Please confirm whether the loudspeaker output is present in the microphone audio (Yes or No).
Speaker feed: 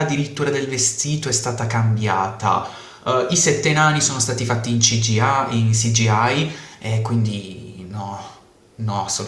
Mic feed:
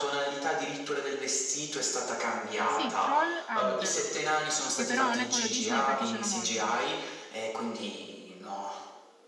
Yes